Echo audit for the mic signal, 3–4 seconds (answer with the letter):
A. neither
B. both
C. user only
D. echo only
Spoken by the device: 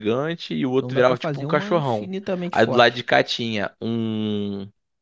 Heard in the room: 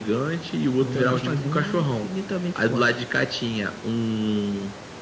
D